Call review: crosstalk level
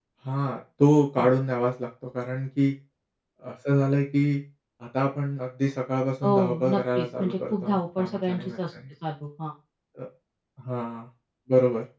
present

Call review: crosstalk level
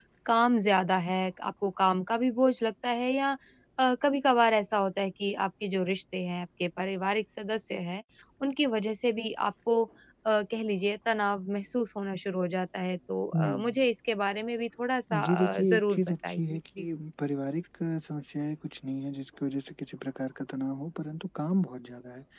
present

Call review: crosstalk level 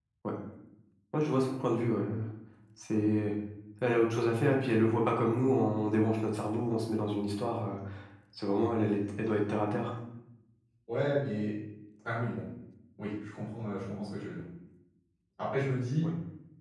none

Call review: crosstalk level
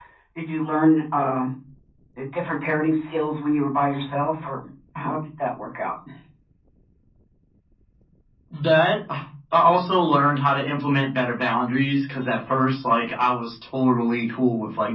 none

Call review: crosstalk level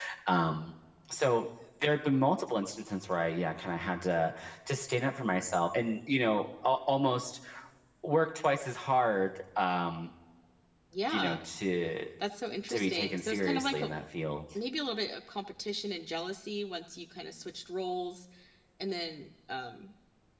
present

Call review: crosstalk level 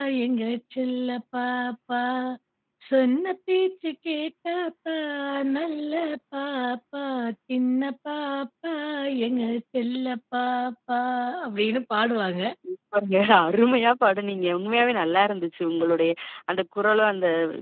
none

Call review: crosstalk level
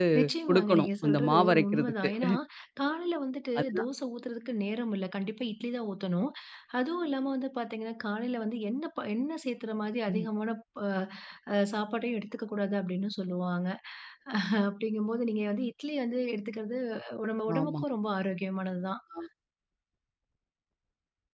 present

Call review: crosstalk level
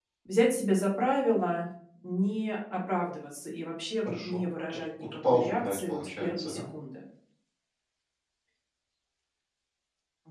present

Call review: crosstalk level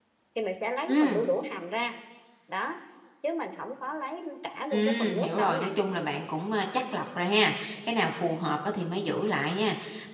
present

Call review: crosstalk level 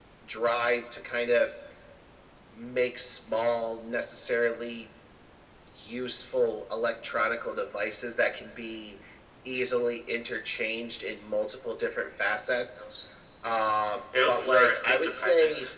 present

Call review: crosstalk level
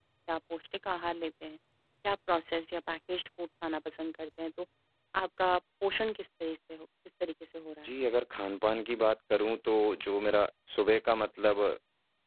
none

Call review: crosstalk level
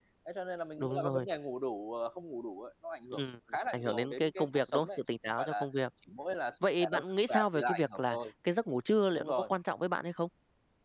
present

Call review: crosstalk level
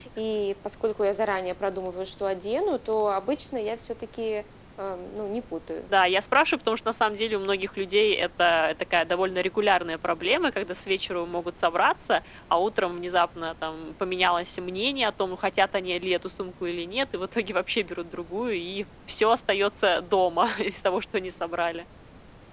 none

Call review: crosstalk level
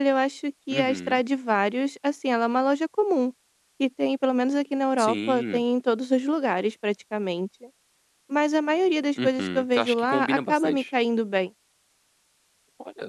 present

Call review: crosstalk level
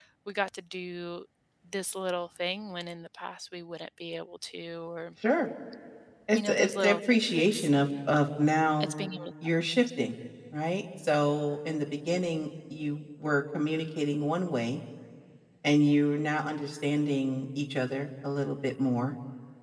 present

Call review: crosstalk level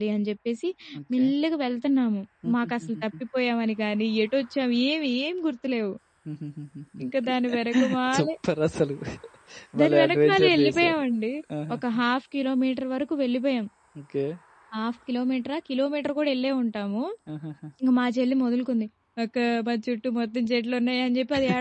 present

